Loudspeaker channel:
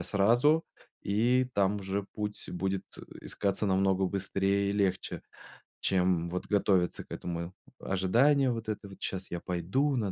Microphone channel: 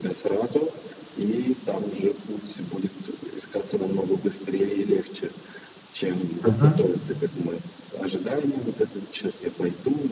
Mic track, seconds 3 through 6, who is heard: echo only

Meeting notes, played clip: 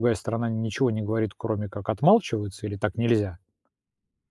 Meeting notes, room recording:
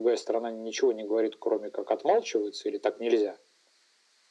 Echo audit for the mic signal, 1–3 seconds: echo only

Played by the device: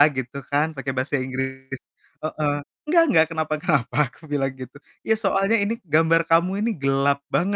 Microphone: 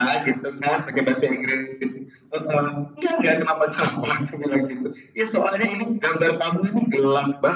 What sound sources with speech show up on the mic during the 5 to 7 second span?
echo only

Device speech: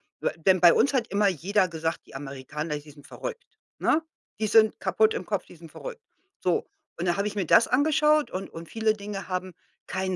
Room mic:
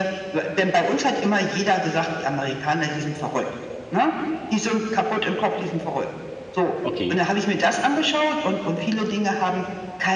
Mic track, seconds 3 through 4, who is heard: echo only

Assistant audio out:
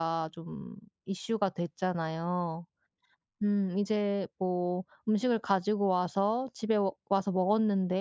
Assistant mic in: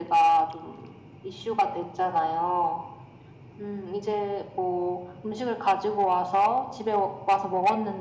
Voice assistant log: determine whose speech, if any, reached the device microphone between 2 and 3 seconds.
echo only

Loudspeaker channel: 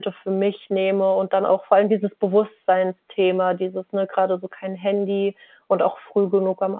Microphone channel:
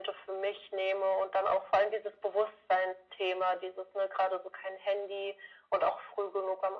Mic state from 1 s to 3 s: echo only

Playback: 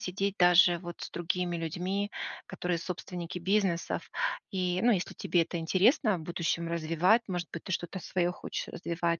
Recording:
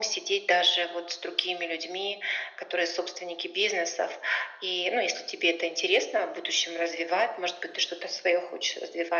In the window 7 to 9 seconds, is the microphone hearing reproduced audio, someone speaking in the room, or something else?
echo only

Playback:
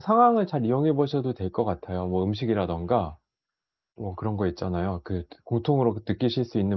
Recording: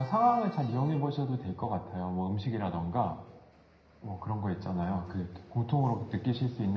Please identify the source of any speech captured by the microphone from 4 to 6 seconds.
echo only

